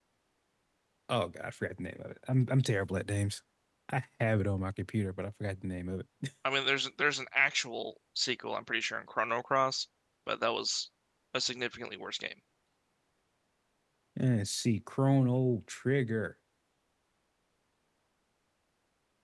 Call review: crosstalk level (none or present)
none